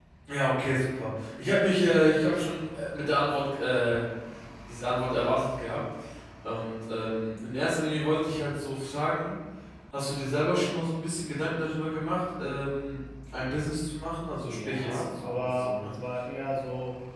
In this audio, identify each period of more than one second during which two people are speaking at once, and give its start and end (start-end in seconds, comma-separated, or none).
14.5-15.9